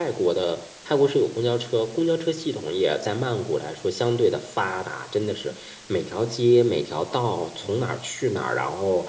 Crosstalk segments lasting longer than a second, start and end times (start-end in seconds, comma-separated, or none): none